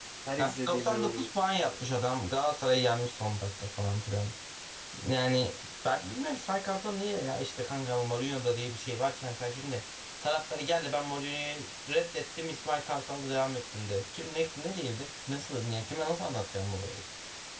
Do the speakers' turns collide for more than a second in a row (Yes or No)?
Yes